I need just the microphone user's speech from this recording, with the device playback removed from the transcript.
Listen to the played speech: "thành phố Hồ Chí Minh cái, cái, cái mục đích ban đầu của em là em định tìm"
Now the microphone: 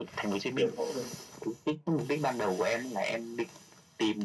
tiểu phẫu được

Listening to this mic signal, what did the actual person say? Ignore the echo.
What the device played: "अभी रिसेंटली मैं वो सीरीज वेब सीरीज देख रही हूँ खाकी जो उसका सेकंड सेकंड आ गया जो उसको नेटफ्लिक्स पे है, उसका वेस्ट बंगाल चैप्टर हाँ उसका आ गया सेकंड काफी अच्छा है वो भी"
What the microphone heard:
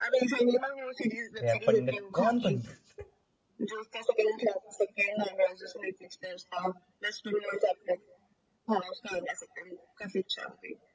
अरे यार पंडित कौन पंडित

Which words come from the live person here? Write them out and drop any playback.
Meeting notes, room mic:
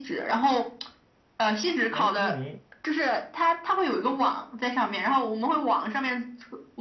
哎，那你

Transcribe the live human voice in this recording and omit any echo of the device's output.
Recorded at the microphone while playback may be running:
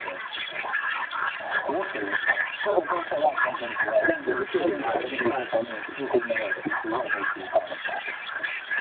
我不确定他有没有，但

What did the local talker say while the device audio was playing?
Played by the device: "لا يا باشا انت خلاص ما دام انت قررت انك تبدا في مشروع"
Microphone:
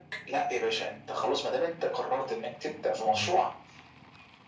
مظبوط

